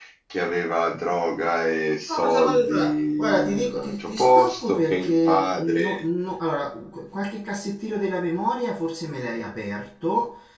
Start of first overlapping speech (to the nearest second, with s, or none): 2 s